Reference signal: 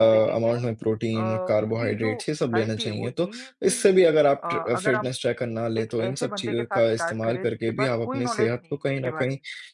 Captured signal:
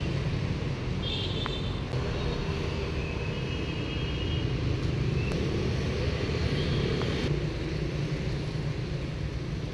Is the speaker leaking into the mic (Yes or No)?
No